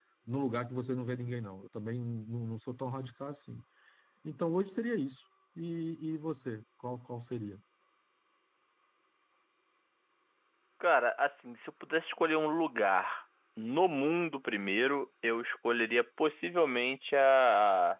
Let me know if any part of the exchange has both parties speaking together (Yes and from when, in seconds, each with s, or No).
No